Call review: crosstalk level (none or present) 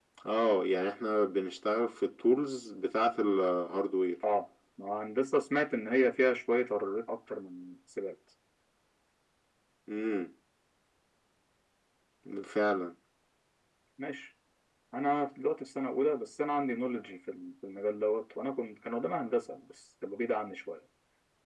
none